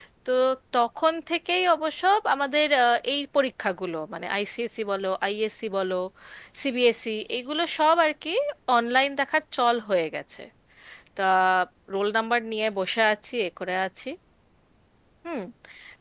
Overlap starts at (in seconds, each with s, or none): none